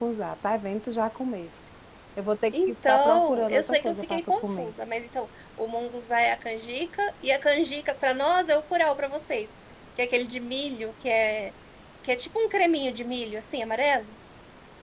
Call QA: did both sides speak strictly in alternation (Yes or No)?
No